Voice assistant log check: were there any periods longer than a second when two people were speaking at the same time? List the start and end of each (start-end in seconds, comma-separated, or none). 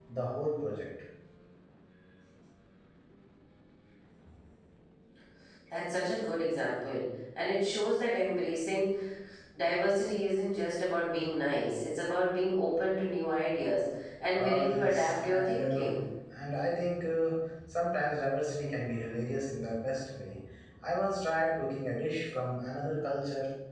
14.3-15.9